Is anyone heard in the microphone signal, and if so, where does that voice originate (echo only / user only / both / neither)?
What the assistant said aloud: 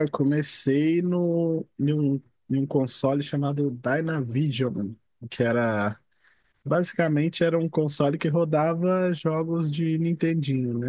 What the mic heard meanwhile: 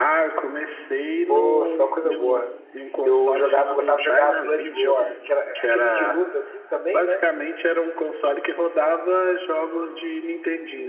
both